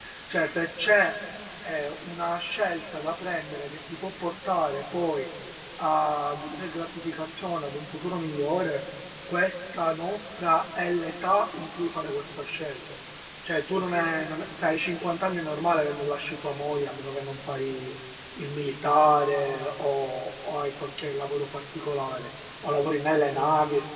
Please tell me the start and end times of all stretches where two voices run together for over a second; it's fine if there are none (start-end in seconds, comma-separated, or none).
none